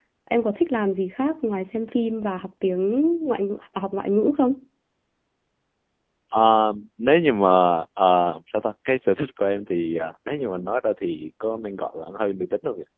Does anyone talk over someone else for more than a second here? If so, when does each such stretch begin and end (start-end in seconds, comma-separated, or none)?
none